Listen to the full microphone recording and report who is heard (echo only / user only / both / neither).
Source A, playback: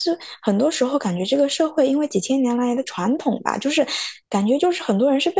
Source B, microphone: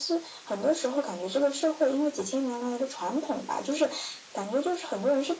echo only